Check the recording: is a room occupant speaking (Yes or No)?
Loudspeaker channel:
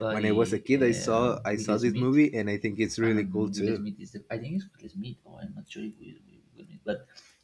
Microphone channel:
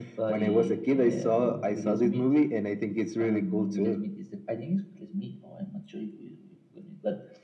No